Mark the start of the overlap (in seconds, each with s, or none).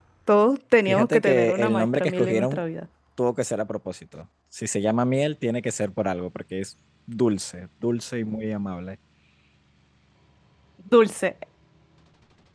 0.9 s